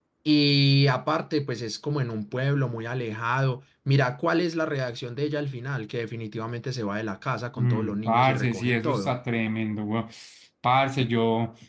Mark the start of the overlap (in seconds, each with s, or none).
7.6 s